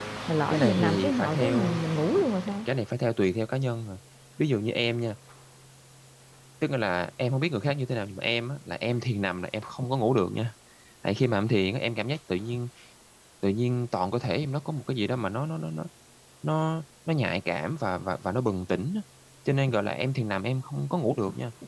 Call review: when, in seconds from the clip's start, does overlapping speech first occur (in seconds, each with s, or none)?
0.5 s